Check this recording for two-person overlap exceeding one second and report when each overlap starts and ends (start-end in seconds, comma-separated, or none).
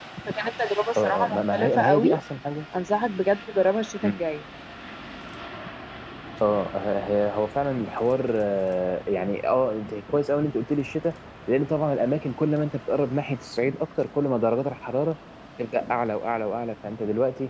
1.0-2.2